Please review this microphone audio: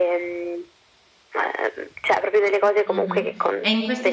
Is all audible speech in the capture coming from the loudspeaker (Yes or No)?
No